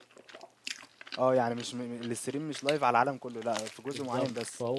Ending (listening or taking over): taking over